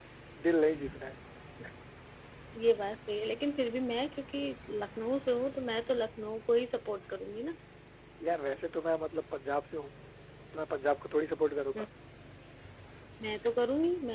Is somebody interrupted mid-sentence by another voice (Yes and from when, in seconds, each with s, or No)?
No